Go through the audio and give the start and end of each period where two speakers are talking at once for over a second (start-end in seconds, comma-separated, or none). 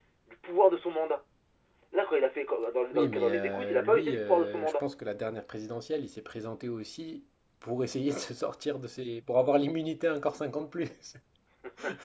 2.9-4.8